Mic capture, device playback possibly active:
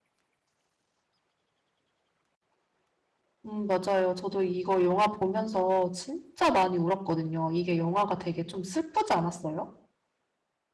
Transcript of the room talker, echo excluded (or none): 음, 맞아요. 저도 이거 영화 보면서 진짜 많이 울었거든요. 이게 영화가 되게 좀 슬프지 않았어요?